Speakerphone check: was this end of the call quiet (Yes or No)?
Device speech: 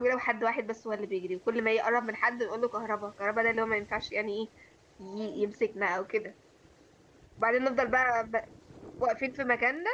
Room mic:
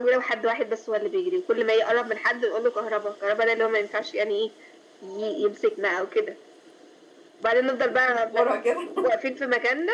No